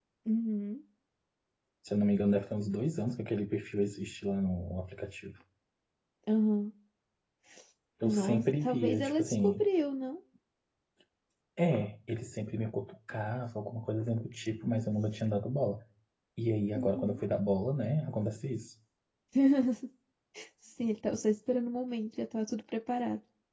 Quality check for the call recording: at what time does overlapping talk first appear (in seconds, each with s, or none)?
8.0 s